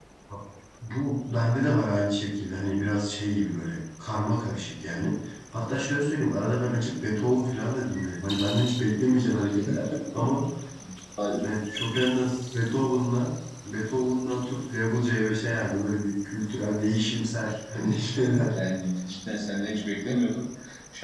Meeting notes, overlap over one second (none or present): none